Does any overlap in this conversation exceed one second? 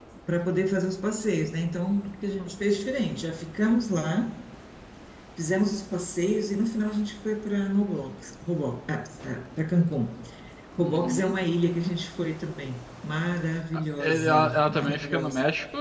Yes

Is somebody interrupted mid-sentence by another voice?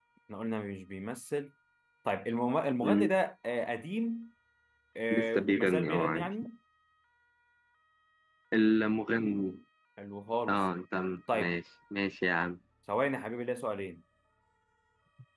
Yes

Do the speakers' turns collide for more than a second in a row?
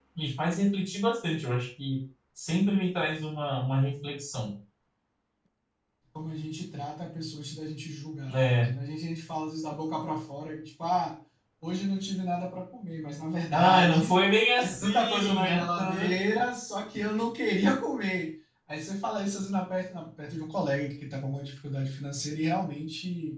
Yes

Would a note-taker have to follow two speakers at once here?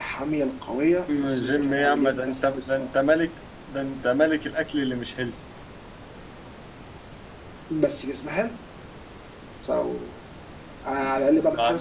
Yes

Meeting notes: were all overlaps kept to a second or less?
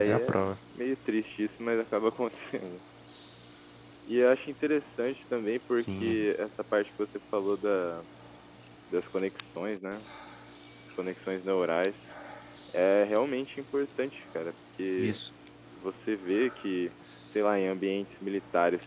Yes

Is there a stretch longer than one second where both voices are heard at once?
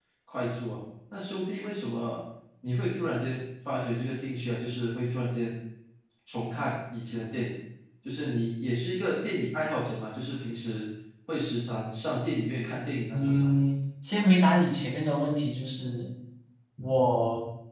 No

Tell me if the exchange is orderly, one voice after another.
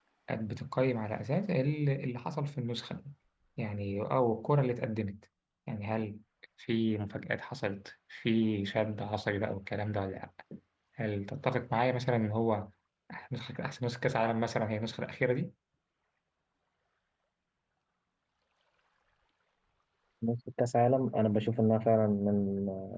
Yes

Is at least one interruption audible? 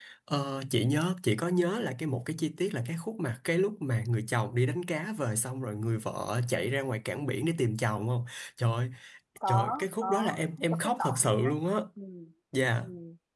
Yes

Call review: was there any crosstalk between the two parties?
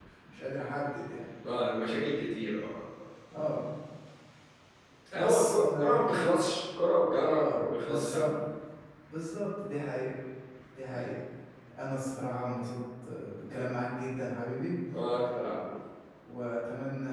Yes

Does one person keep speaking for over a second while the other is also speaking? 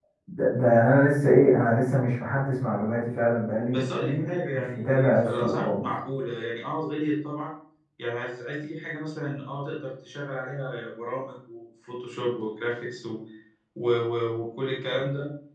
Yes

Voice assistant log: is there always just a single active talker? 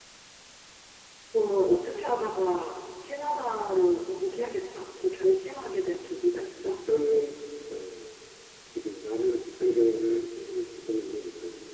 Yes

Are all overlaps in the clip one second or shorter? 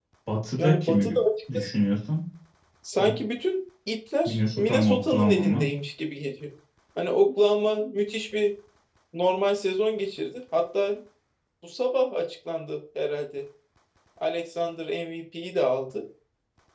No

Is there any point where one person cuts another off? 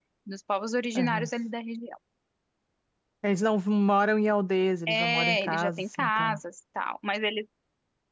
Yes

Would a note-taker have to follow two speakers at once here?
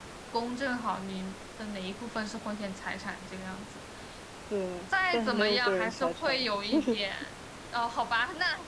Yes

